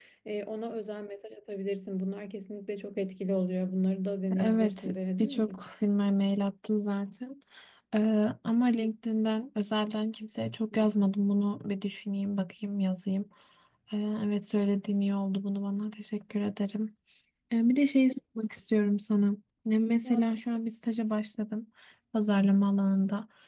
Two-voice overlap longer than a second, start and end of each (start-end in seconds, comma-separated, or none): 4.4-5.7